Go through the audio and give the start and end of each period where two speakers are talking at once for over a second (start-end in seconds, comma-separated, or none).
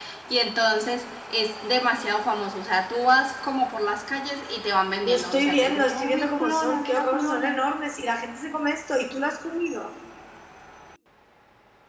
5.0-7.6